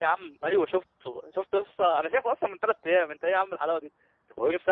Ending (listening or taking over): listening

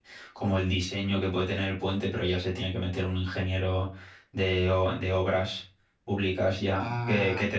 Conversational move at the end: listening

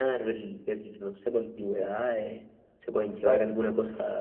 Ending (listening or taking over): listening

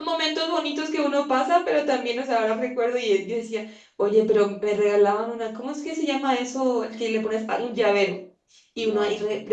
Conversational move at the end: listening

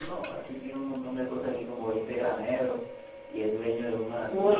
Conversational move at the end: listening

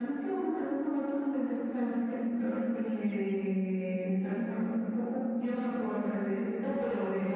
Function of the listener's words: taking over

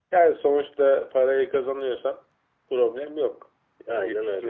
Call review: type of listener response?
listening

